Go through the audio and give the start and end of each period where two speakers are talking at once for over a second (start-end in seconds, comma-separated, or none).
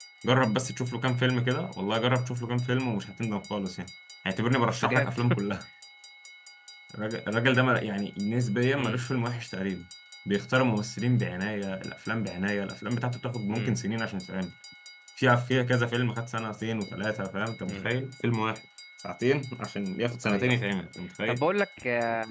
none